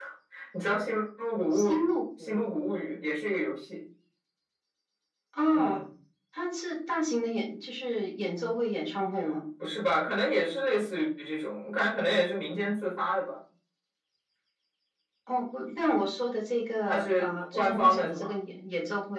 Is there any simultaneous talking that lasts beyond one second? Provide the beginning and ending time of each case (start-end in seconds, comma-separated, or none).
16.9-18.3